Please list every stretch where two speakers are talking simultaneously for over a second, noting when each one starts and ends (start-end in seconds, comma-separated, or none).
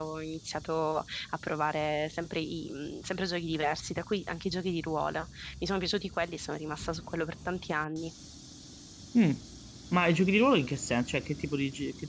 none